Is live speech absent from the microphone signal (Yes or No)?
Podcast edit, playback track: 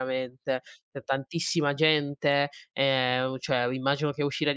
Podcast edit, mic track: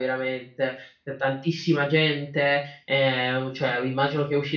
Yes